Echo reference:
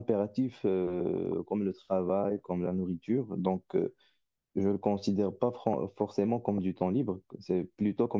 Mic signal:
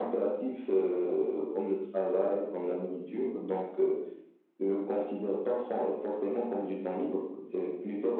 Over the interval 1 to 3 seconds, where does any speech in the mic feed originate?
echo only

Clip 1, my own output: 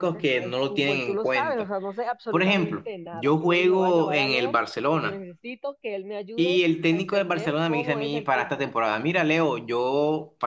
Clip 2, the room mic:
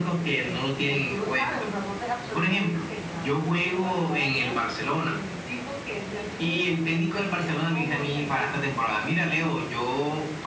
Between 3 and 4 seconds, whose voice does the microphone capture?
echo only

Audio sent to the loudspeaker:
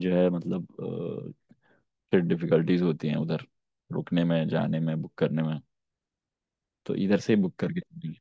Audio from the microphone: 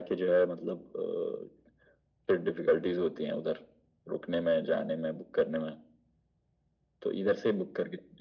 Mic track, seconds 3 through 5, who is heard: echo only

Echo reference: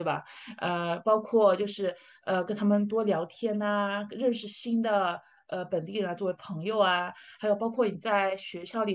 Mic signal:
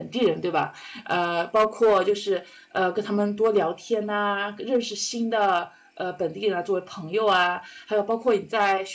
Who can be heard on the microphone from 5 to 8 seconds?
echo only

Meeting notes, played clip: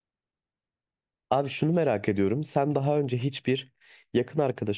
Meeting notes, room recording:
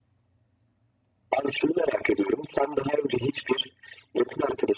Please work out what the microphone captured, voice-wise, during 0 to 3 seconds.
echo only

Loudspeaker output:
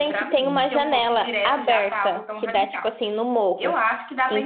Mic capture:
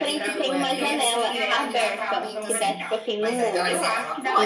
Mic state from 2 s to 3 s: both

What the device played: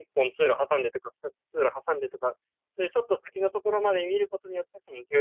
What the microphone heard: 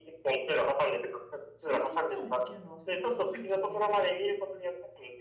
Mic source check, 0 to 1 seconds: echo only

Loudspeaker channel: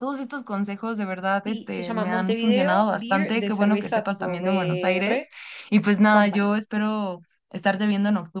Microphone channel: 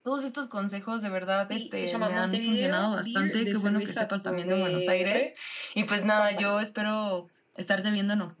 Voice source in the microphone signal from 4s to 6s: echo only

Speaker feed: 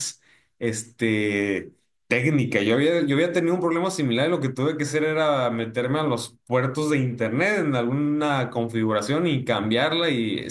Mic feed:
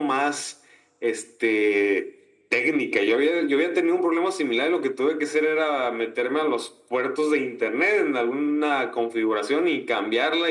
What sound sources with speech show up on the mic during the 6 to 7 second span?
echo only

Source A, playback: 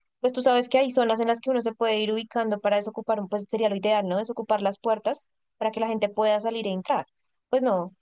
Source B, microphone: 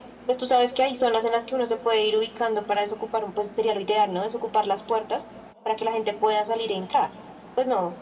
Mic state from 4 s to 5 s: echo only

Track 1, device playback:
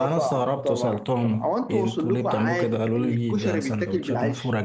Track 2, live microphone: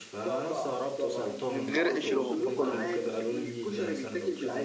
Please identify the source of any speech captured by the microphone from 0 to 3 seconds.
both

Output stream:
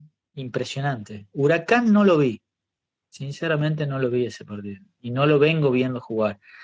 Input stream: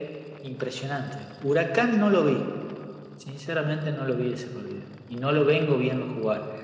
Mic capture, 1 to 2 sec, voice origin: echo only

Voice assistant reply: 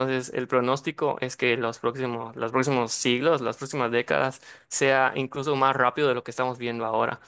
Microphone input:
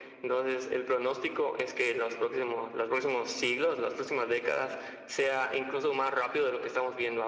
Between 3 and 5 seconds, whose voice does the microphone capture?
echo only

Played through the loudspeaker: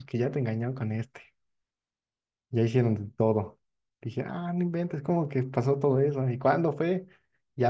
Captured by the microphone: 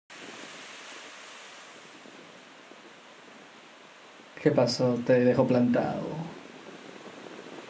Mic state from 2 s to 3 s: neither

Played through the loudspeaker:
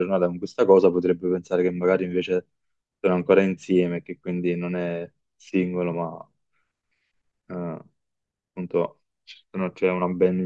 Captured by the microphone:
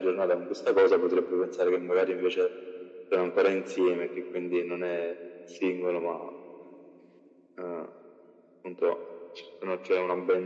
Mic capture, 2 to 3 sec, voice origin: echo only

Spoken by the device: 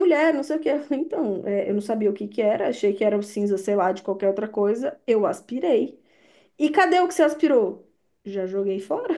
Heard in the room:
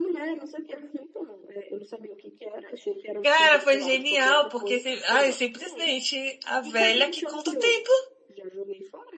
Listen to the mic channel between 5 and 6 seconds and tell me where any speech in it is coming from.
both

